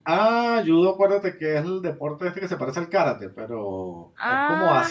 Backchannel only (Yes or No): Yes